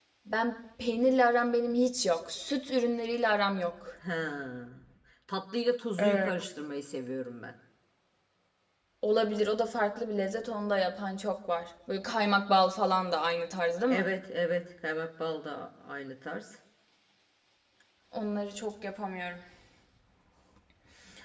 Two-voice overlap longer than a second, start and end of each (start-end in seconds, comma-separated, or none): none